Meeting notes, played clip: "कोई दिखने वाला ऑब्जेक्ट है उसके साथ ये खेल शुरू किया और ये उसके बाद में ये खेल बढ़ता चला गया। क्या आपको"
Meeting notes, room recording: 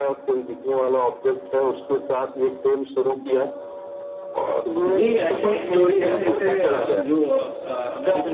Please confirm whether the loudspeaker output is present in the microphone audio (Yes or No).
Yes